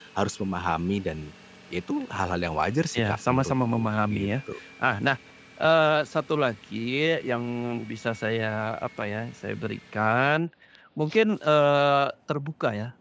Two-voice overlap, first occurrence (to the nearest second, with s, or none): 3 s